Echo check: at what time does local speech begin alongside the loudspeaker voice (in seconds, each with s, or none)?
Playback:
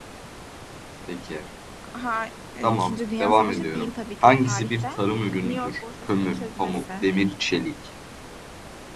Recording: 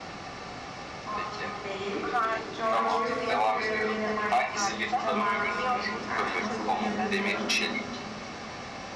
1.0 s